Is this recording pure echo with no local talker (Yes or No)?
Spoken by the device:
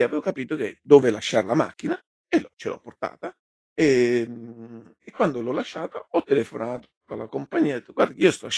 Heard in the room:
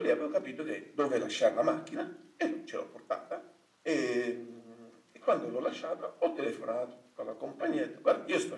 Yes